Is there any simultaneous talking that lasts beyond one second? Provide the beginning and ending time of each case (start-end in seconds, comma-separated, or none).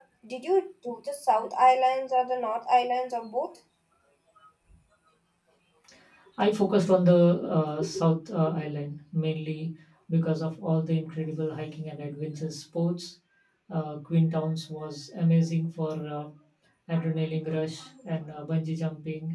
none